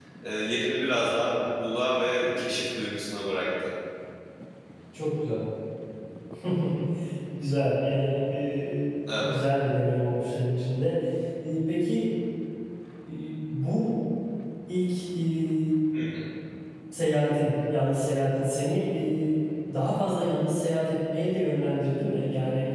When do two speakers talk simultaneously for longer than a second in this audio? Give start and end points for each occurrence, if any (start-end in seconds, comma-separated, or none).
none